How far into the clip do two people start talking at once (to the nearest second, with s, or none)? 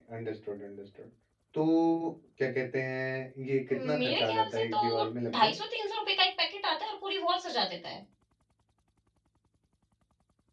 4 s